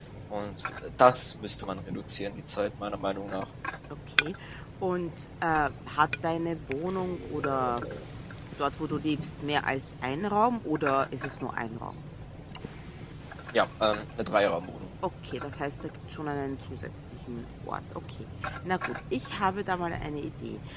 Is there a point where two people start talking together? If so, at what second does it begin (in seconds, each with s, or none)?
none